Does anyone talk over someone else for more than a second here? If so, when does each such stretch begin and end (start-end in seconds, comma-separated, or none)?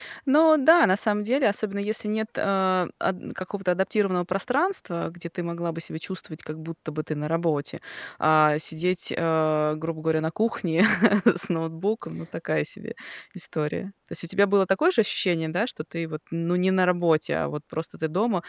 none